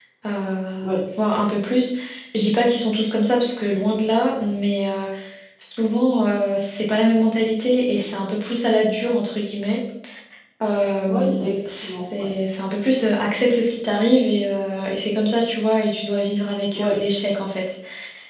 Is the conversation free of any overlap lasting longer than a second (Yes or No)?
No